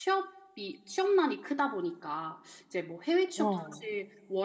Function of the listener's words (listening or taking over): listening